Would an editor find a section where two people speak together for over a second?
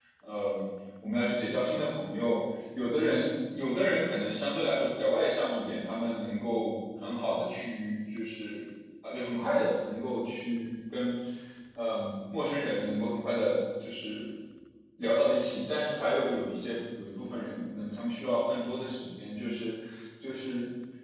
No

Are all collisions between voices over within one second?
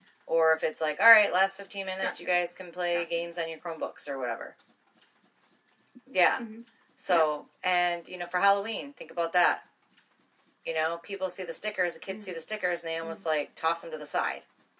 Yes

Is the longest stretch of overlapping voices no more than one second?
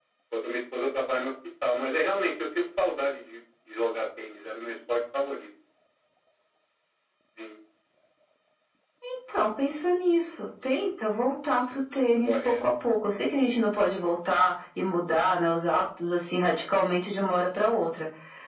Yes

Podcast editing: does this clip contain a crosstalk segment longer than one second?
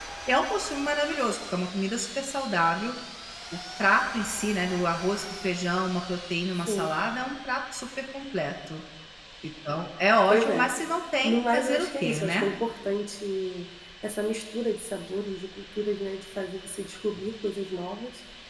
Yes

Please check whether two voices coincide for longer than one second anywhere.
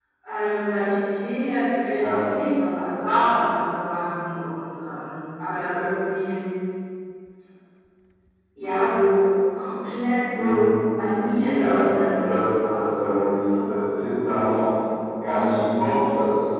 Yes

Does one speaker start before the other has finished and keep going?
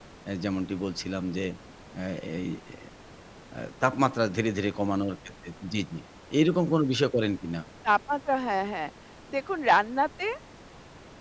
No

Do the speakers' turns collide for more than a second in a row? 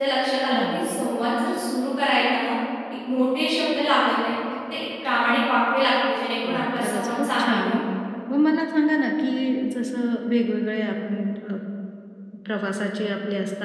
Yes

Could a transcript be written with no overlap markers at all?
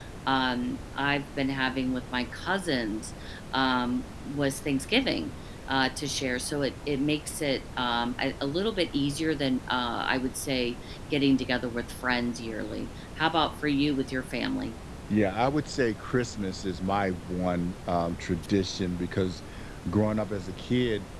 Yes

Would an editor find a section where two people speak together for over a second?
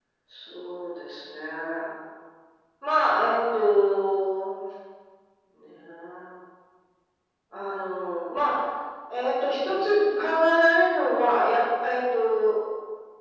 No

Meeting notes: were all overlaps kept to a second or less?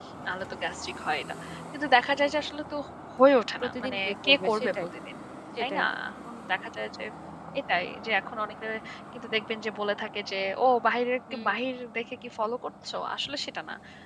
No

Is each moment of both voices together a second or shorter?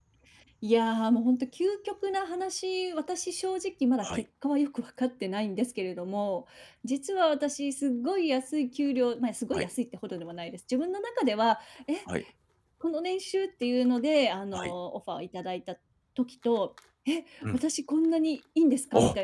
Yes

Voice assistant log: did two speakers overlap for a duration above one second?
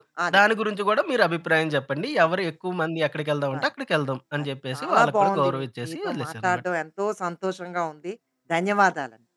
Yes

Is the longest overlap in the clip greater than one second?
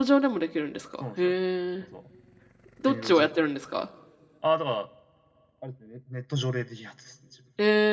No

